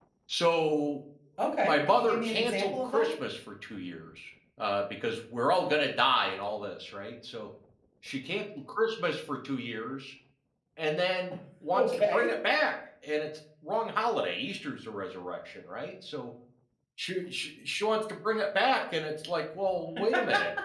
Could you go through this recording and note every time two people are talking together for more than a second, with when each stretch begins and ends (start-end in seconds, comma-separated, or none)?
1.6-3.1